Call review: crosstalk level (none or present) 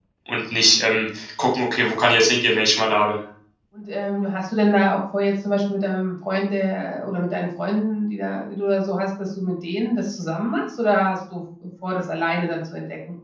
none